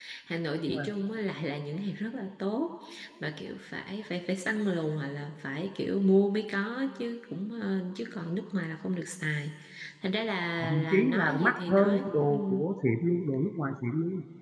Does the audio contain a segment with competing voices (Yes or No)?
Yes